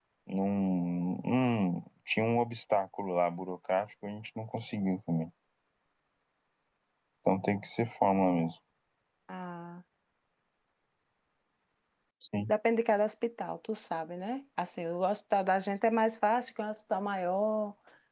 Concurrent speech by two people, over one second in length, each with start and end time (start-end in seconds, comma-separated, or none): none